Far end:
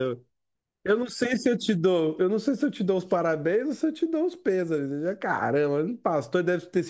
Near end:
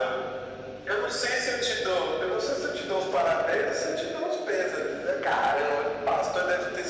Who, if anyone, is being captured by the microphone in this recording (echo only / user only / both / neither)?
echo only